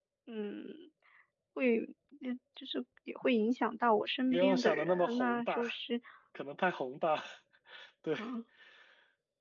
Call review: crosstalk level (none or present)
present